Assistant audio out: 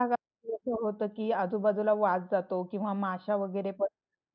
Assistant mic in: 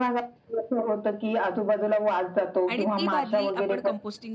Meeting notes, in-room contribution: present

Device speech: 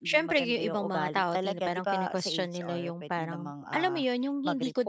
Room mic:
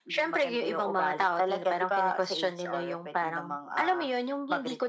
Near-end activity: none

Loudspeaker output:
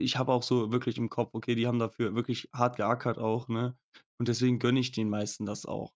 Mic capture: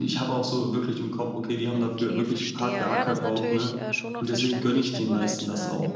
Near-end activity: present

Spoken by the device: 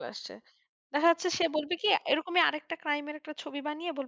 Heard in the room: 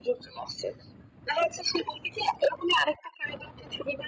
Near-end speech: none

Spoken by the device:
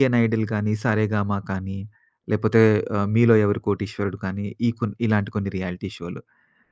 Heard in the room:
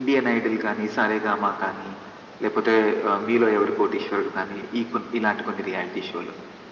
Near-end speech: none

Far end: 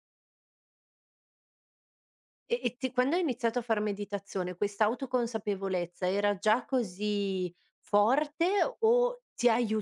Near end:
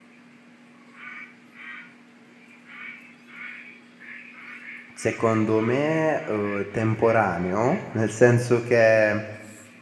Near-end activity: present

